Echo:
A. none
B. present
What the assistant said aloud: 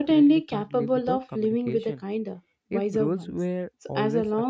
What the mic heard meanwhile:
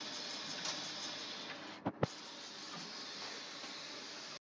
A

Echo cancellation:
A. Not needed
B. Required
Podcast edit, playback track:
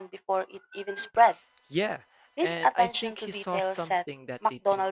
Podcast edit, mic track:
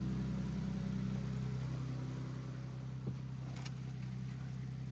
A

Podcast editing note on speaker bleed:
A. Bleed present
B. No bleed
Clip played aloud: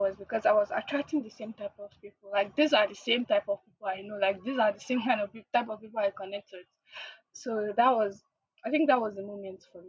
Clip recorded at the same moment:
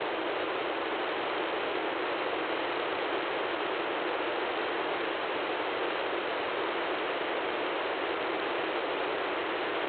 B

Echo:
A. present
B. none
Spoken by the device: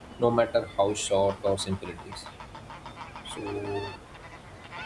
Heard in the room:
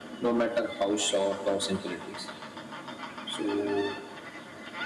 A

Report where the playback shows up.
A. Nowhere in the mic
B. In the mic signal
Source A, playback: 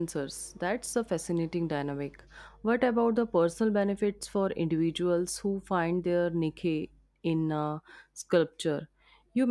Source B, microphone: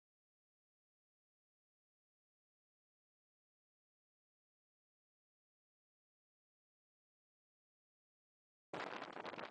A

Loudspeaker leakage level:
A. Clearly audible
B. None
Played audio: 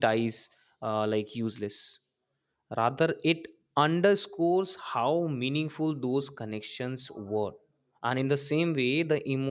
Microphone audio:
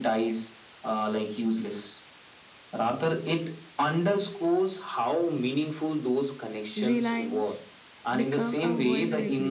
A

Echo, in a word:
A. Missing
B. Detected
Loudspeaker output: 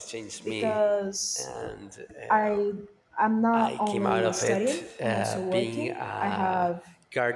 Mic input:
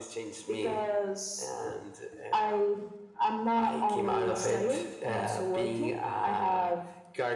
B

